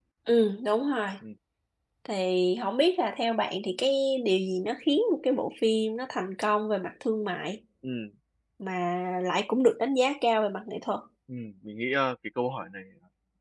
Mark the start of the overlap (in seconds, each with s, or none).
none